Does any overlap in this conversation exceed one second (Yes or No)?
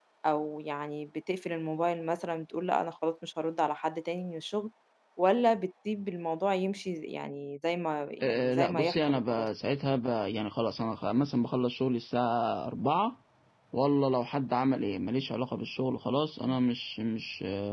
Yes